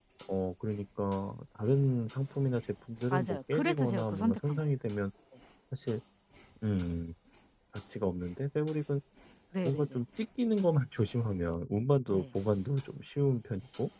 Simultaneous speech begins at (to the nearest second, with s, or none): 3 s